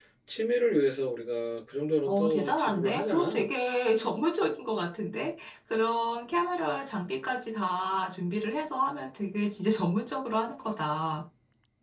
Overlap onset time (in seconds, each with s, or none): 2.1 s